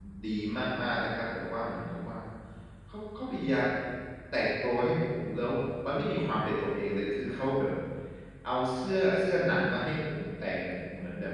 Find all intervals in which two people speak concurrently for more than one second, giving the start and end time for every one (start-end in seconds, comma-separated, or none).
none